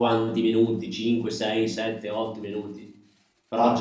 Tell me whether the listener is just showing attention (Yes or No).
Yes